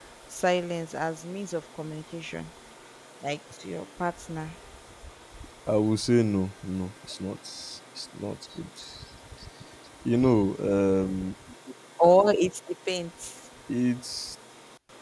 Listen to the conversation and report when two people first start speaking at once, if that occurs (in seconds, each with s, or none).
none